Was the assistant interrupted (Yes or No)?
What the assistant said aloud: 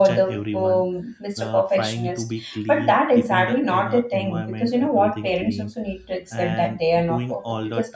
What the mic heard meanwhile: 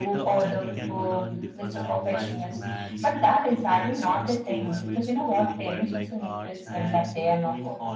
Yes